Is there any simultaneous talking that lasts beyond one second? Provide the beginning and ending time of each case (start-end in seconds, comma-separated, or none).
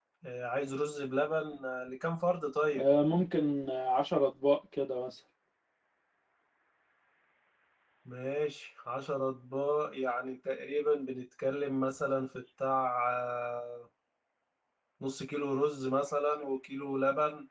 none